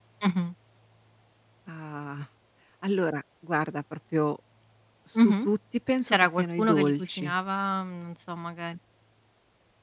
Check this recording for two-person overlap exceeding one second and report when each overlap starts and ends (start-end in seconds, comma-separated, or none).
6.1-7.3